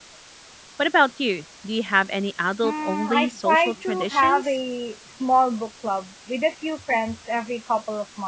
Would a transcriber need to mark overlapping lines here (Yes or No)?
Yes